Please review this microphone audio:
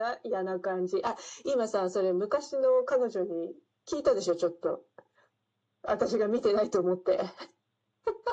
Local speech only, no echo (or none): none